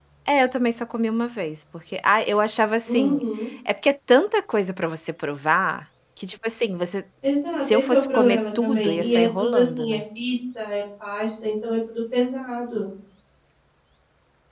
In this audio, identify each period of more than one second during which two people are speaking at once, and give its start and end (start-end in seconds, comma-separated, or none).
7.6-10.0